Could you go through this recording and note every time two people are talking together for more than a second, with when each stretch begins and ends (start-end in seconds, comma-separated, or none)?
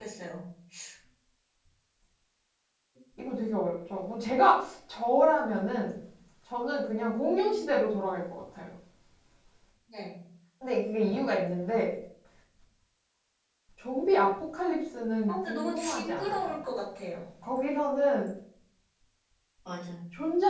7.0-8.2, 15.3-16.6